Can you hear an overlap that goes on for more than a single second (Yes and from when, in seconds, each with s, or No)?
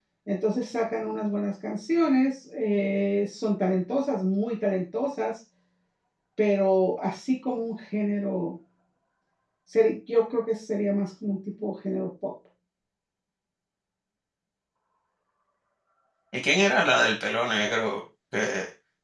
No